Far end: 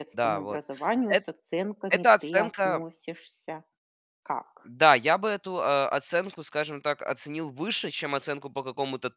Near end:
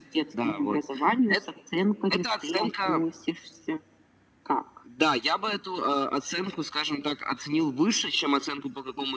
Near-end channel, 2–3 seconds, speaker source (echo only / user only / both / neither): echo only